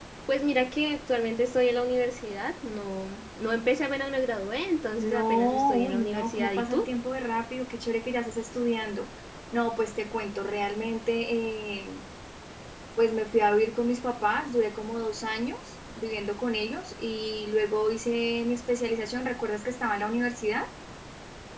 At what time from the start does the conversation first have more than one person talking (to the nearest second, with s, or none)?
5 s